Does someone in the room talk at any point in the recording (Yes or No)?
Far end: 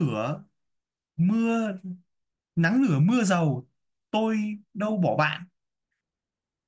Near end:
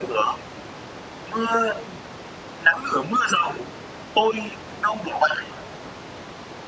No